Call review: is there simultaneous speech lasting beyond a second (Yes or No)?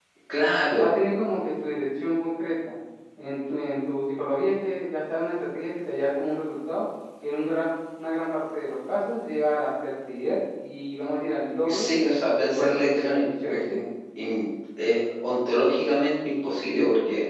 Yes